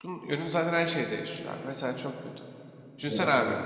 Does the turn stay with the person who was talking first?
Yes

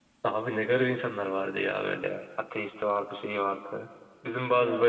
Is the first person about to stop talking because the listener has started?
No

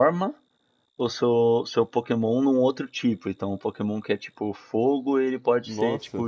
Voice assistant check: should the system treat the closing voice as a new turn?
No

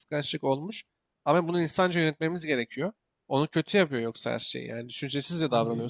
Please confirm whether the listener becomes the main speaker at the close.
Yes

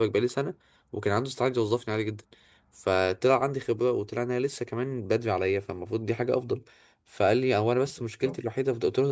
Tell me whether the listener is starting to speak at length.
No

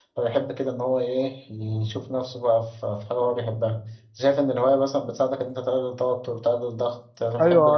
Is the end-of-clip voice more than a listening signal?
Yes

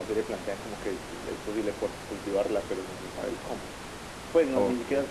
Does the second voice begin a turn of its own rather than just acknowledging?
No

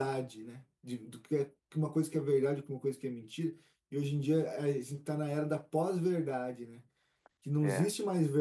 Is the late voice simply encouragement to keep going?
Yes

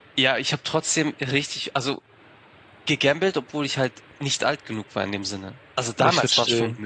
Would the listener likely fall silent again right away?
Yes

